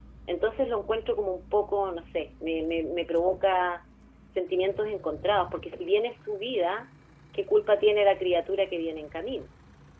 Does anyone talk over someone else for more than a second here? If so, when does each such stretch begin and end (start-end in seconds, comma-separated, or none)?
none